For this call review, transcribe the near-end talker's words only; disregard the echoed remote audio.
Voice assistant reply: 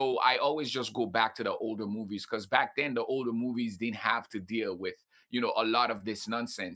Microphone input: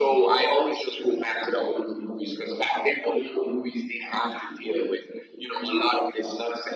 none

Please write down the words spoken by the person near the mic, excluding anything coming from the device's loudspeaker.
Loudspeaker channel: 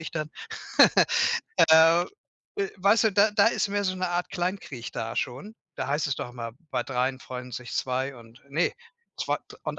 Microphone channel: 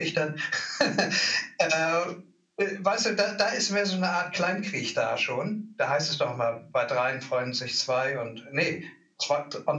none

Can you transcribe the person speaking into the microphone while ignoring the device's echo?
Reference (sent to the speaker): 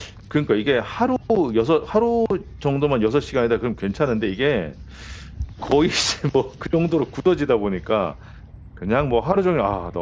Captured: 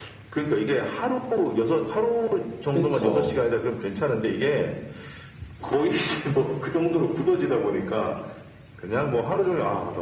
그쵸.

